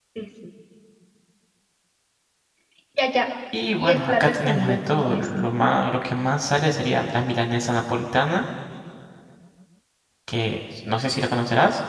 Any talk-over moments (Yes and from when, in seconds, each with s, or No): Yes, from 3.8 s